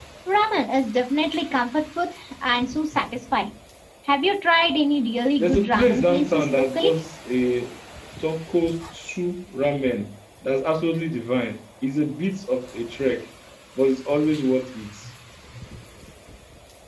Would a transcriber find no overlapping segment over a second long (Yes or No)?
No